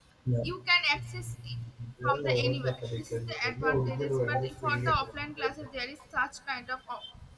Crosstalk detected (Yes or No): Yes